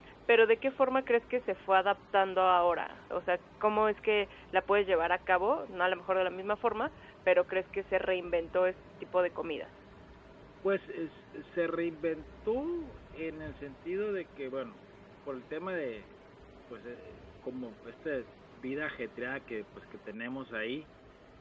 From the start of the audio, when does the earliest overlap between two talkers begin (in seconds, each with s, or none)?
none